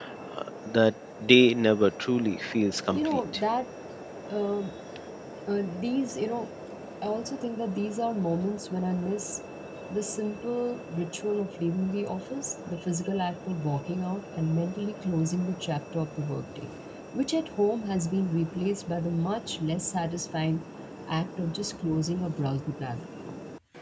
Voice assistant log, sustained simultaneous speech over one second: none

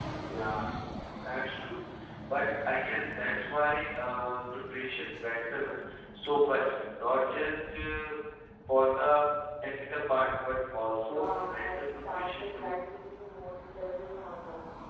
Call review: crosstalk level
present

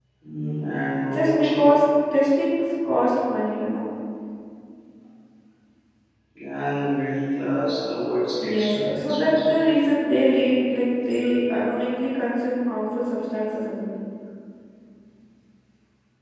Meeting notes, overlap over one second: present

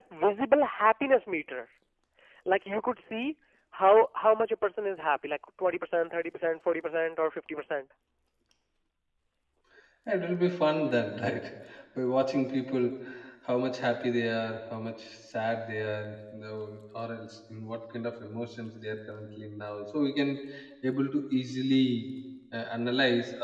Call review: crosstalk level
none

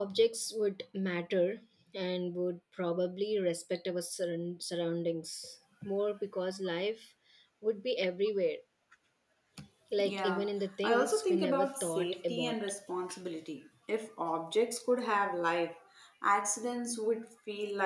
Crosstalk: present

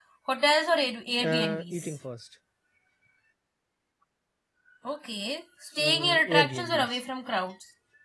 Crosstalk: present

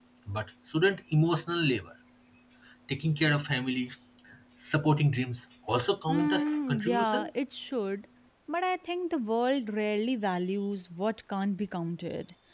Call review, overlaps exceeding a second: present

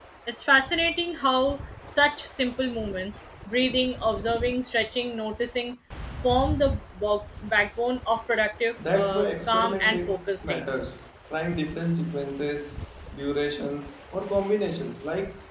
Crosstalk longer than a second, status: present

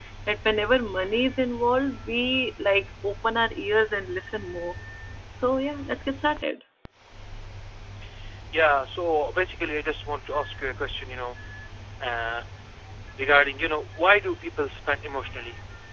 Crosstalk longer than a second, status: none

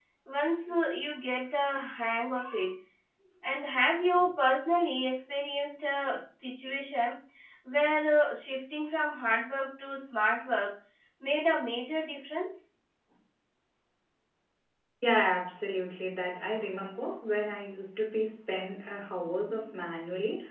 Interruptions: none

